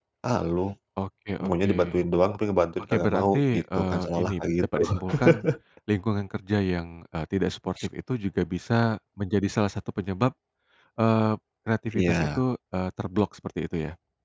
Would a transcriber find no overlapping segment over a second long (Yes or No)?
No